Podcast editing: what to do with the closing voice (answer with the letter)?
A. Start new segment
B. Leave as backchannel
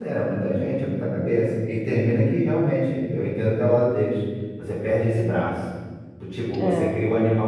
B